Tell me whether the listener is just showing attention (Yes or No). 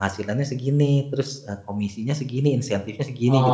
No